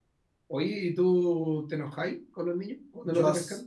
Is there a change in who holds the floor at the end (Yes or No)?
Yes